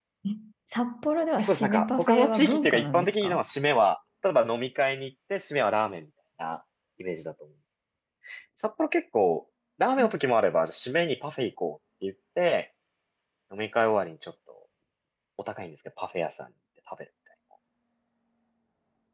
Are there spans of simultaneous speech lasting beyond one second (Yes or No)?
Yes